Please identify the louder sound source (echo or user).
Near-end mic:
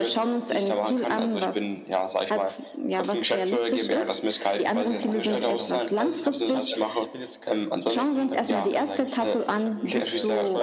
echo